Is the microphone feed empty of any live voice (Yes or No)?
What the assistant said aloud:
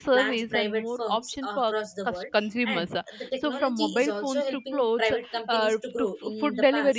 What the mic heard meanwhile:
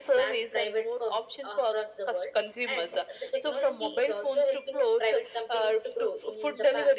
Yes